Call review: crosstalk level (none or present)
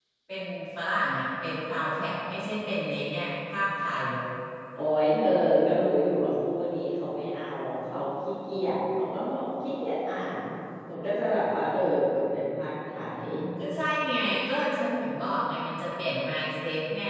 none